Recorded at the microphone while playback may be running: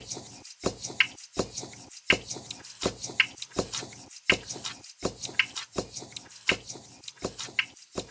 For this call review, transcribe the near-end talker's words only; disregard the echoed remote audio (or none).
none